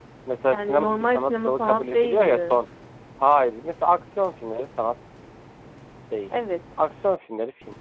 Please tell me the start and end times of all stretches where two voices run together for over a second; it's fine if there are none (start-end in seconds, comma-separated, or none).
0.5-2.6